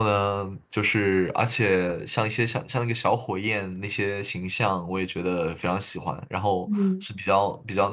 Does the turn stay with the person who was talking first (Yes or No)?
Yes